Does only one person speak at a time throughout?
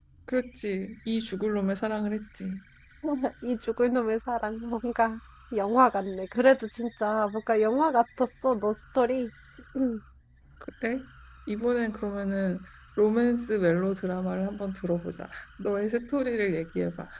Yes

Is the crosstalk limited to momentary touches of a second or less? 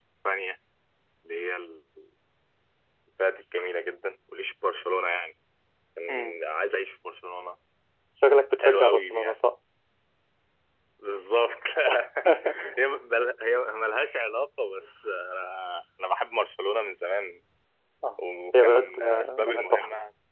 No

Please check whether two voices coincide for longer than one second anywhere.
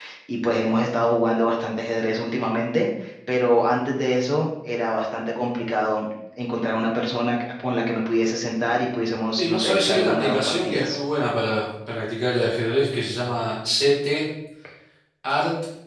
Yes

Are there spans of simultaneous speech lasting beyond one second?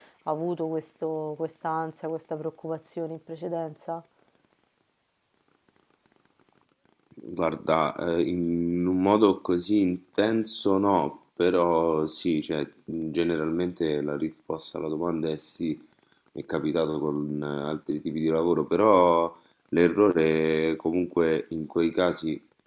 No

